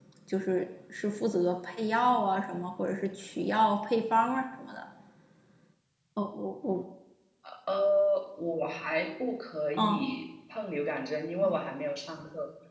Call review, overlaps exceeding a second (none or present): none